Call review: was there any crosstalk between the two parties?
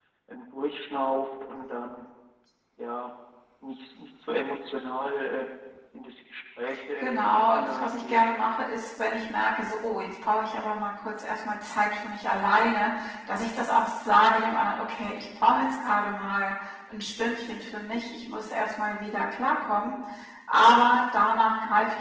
Yes, from 7.0 s

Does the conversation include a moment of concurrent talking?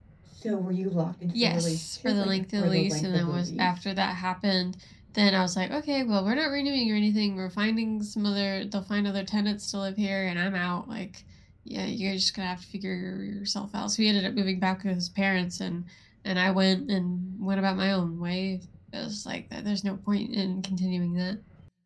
Yes, from 1.3 s

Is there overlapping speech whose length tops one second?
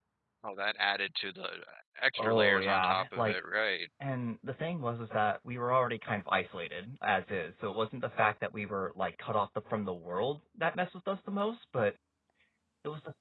Yes, from 2.2 s

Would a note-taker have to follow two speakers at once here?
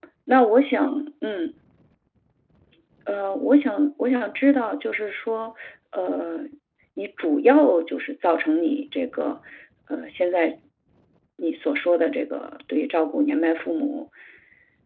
No

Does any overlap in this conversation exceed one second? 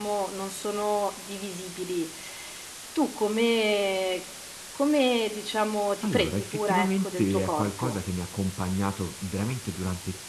Yes, from 6.0 s

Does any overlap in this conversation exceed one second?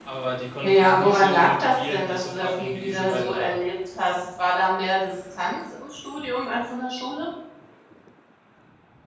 Yes, from 0.6 s

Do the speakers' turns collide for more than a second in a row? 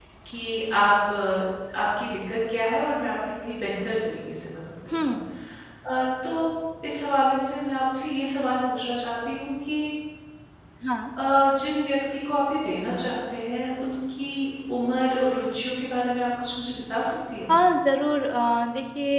No

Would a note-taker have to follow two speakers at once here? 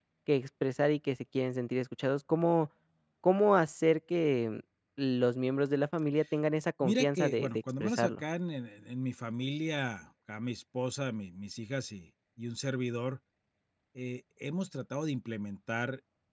Yes, from 6.8 s

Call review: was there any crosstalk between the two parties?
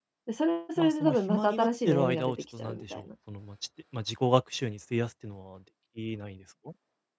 Yes, from 0.8 s

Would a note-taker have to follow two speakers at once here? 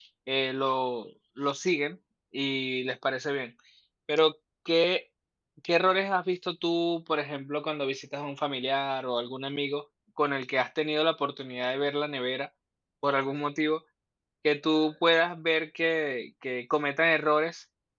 No

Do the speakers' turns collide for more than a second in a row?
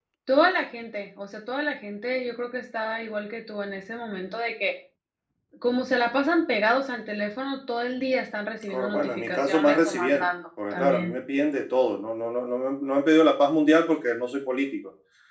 Yes, from 8.7 s

